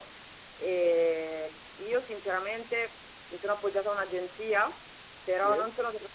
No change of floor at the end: Yes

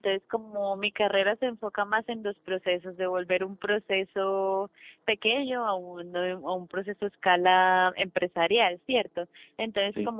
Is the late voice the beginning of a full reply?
No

